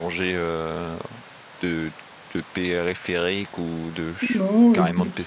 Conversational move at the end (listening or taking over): taking over